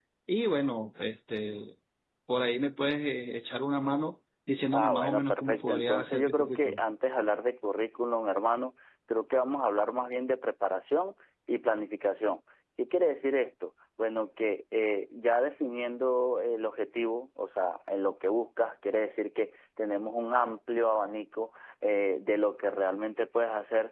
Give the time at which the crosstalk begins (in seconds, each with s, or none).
4.7 s